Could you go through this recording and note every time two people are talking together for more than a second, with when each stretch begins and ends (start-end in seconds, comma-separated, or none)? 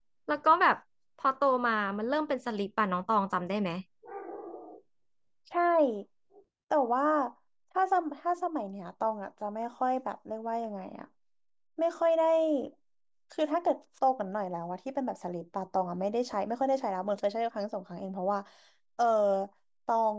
none